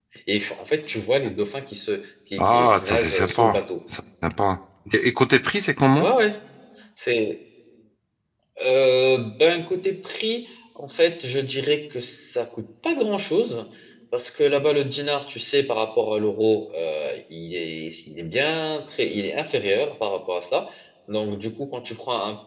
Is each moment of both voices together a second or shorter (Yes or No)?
No